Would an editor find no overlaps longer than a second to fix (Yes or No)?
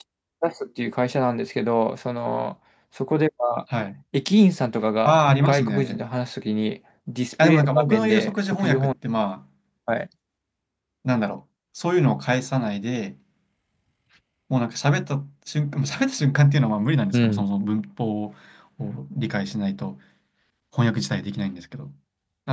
No